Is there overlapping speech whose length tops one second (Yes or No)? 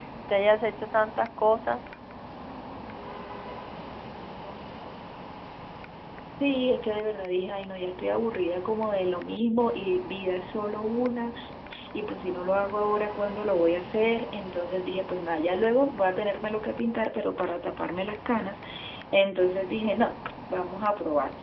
No